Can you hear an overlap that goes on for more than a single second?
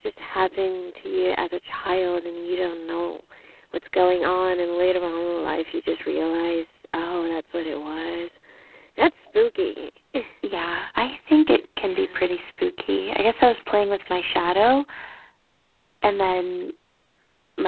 No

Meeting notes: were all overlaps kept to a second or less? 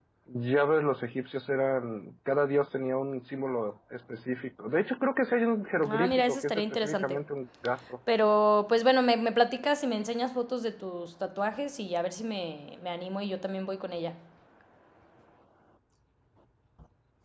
No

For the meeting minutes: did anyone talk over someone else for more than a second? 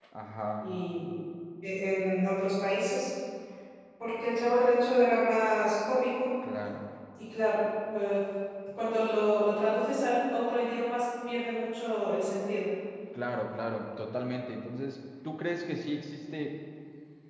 No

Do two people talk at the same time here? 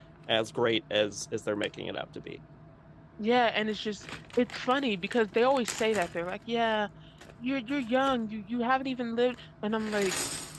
No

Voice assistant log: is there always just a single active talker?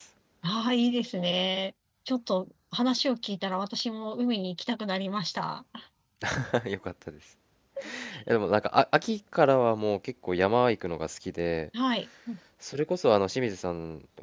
Yes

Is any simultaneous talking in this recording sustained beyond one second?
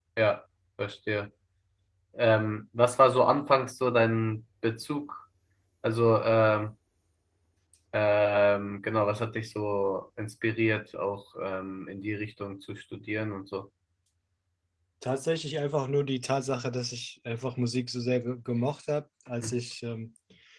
No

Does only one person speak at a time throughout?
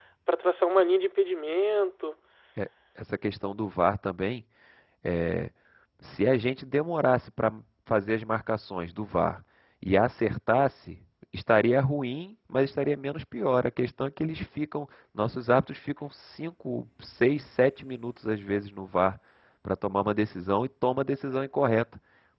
Yes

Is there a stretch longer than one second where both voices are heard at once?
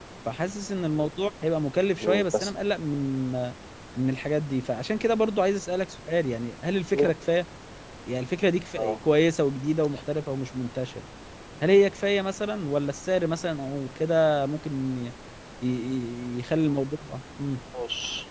No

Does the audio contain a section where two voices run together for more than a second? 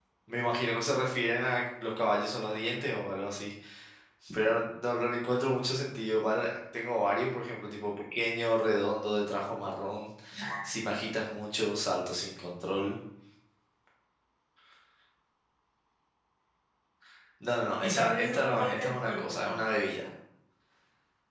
Yes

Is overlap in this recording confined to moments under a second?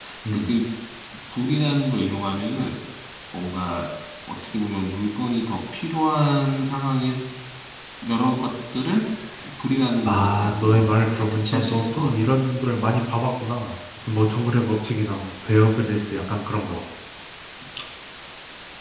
No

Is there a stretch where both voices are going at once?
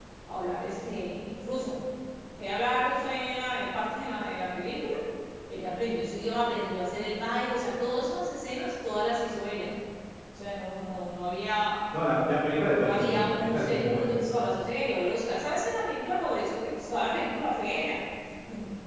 Yes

